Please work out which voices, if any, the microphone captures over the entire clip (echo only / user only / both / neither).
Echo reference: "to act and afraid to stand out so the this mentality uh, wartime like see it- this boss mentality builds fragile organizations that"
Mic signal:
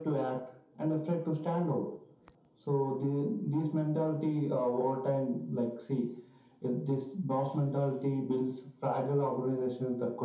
echo only